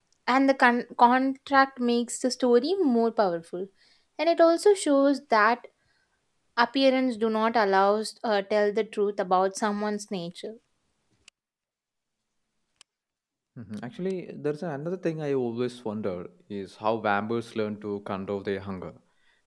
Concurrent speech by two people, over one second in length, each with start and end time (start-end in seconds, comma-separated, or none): none